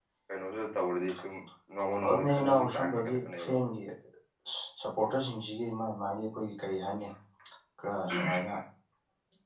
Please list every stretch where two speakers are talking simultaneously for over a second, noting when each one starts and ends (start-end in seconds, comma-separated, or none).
2.1-3.5